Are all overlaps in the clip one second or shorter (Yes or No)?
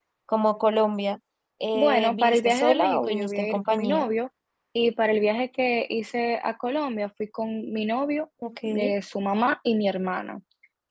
No